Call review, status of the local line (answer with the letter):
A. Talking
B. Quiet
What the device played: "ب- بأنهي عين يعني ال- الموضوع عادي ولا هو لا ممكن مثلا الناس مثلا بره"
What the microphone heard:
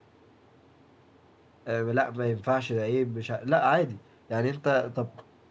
A